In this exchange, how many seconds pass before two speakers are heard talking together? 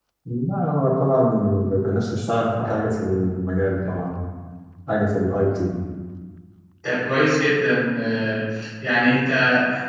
none

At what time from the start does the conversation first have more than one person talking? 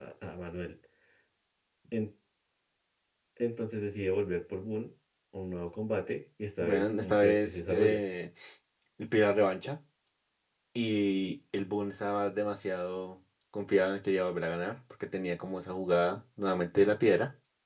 6.6 s

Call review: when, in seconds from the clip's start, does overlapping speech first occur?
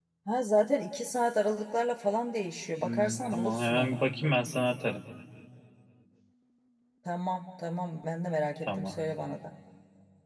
2.8 s

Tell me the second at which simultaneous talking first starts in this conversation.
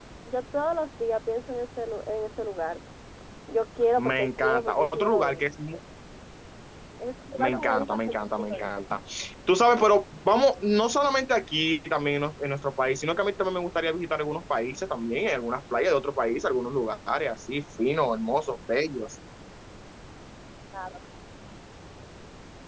4.0 s

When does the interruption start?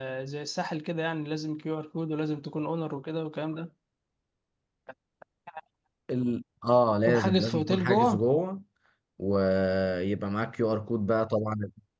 7.0 s

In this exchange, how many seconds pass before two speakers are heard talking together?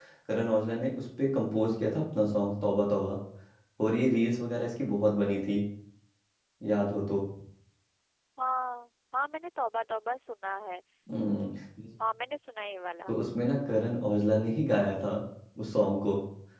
none

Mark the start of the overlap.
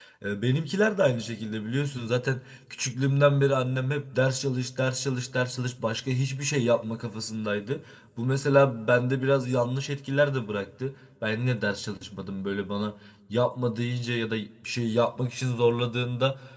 none

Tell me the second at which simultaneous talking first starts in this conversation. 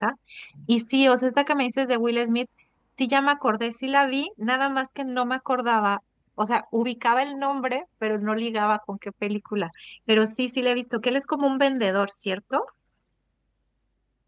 none

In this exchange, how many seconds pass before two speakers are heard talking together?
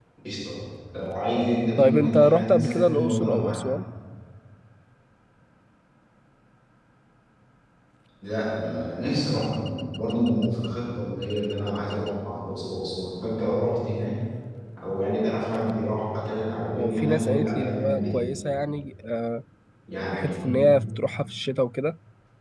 1.8 s

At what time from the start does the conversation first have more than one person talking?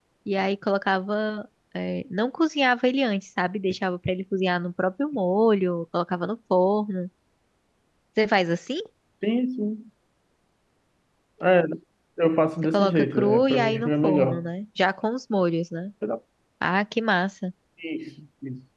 12.6 s

